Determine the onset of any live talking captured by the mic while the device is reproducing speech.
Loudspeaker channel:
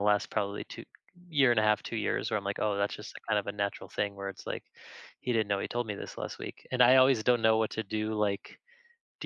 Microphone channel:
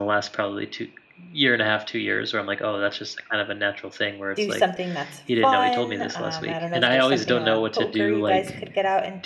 4.3 s

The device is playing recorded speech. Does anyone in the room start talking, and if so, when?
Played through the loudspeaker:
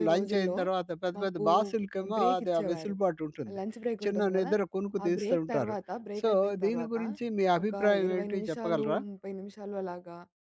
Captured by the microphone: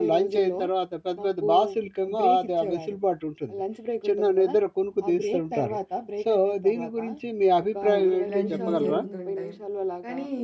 7.9 s

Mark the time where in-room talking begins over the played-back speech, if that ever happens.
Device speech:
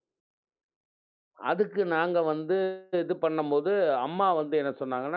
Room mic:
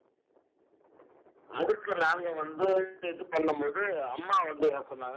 none

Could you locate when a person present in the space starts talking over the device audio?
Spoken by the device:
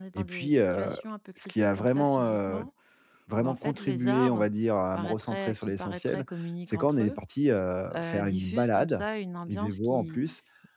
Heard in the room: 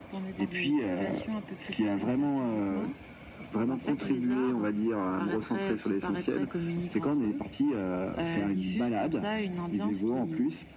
none

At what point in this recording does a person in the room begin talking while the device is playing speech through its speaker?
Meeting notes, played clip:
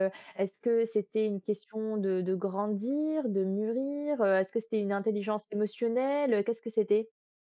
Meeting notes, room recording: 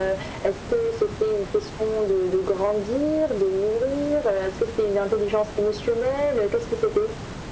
none

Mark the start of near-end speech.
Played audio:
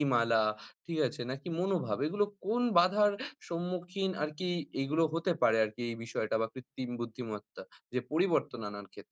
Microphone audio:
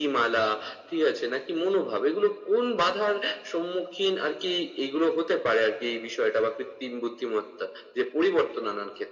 none

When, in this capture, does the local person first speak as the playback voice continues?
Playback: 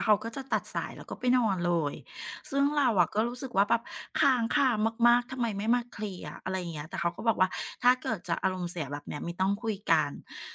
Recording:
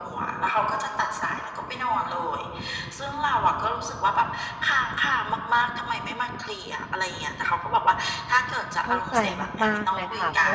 8.8 s

